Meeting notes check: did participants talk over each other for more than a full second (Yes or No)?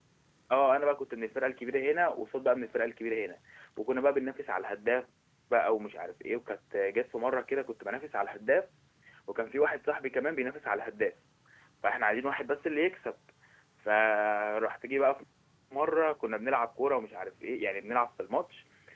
No